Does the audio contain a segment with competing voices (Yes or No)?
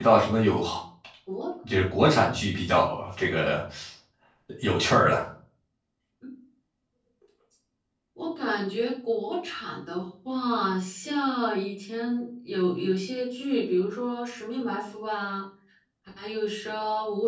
No